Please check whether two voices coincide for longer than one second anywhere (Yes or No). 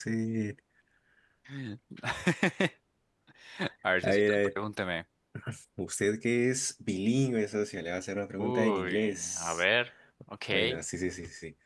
Yes